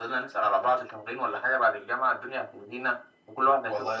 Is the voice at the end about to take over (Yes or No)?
Yes